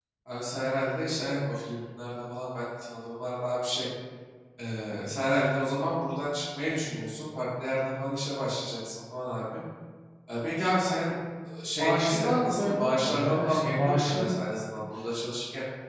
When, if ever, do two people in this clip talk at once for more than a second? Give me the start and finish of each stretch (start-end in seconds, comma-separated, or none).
11.8-14.4